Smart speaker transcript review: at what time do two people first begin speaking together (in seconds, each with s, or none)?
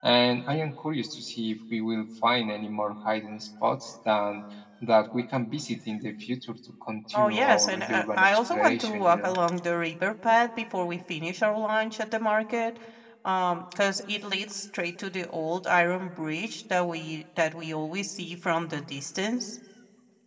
7.1 s